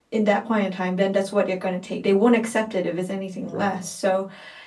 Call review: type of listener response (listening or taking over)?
listening